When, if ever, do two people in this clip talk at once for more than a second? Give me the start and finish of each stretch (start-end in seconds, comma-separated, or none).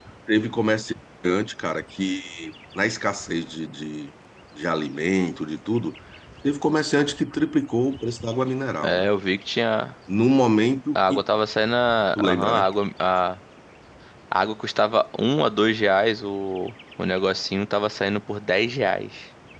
none